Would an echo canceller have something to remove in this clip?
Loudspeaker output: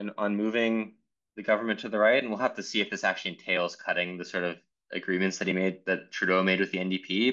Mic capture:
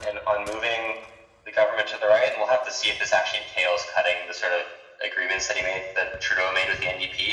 Yes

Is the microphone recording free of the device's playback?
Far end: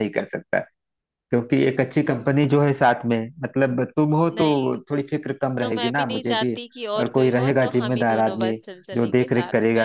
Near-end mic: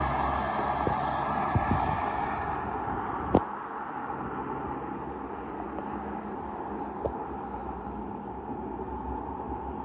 Yes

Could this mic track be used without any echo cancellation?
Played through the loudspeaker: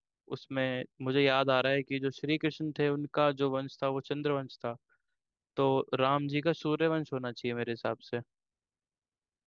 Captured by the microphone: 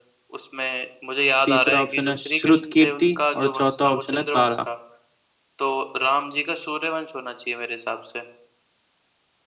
No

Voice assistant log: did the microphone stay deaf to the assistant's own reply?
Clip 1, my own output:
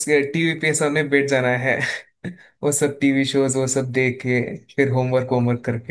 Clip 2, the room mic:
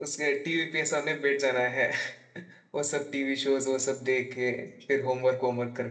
No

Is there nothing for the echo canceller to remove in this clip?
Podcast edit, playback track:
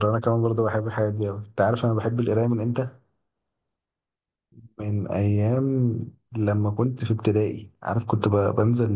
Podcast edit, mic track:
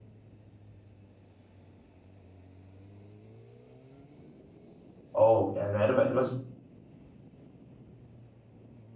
Yes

